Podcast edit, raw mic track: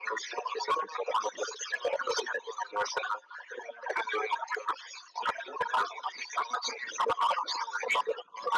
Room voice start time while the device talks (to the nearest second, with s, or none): none